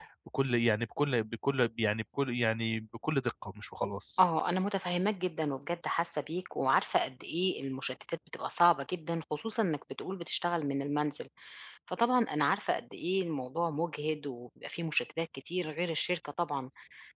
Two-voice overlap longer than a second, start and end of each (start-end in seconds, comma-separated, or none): none